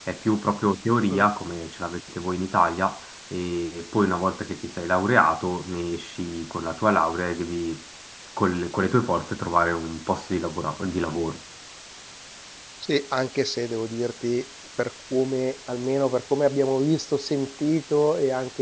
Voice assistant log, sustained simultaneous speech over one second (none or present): none